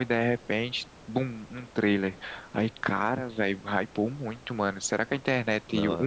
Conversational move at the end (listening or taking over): listening